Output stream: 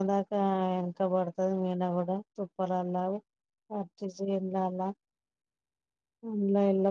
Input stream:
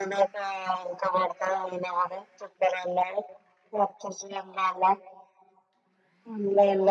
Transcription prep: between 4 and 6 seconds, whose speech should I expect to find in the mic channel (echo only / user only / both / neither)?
echo only